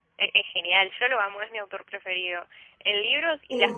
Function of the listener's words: listening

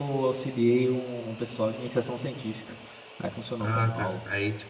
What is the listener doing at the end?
taking over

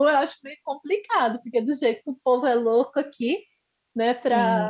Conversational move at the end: taking over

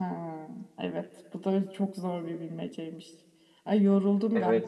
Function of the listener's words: listening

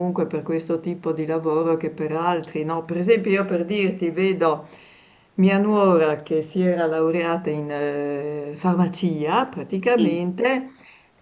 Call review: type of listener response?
listening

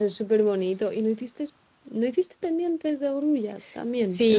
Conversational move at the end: taking over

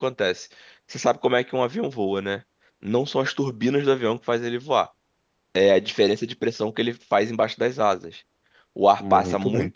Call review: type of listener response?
listening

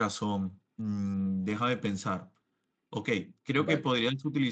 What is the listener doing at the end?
listening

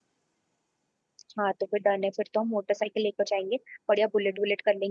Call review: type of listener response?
listening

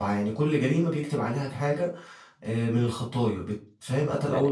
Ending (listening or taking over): taking over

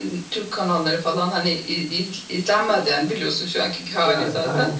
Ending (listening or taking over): listening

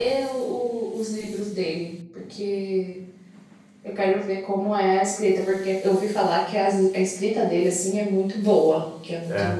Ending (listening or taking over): listening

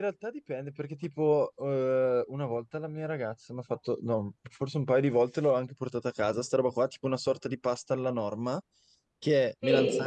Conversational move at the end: listening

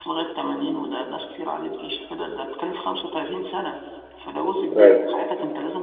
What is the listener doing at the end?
listening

